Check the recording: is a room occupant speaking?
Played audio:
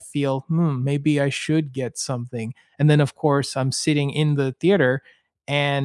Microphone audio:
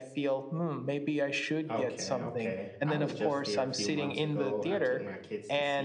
Yes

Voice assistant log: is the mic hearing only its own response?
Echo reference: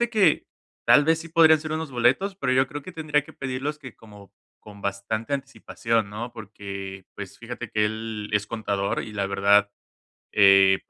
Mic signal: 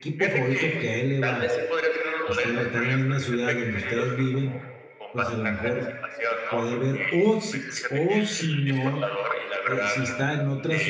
No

